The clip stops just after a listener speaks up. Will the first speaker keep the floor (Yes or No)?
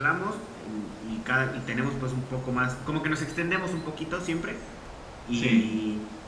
Yes